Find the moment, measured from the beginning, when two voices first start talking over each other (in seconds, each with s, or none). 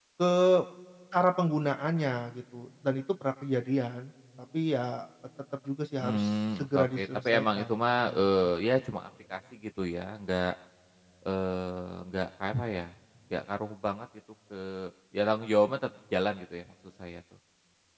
6.0 s